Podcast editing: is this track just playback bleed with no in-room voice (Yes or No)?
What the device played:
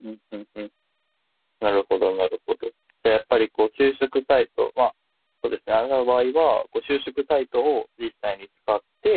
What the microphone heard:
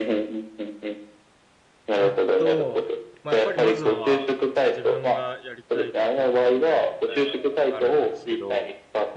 No